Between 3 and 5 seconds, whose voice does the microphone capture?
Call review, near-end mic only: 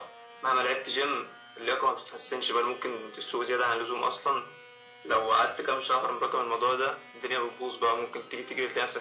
echo only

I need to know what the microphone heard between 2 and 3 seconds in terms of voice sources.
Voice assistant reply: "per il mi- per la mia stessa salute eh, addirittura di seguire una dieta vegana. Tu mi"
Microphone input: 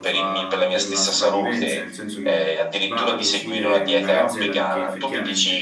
both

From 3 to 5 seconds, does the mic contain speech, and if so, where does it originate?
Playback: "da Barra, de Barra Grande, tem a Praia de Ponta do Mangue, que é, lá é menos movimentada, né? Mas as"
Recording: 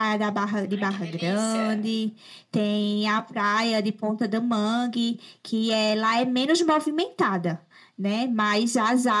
echo only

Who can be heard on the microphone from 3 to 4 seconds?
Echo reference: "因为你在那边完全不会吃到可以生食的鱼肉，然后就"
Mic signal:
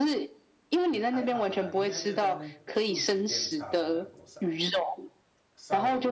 both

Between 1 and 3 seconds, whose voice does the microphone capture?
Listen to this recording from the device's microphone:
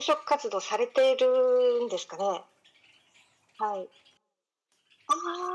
echo only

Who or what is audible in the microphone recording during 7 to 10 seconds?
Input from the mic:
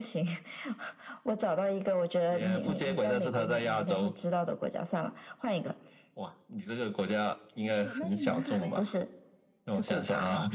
both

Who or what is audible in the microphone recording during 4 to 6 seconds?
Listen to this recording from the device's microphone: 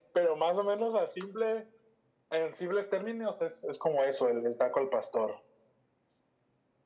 echo only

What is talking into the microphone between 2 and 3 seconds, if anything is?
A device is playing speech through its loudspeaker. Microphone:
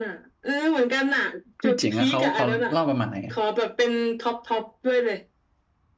both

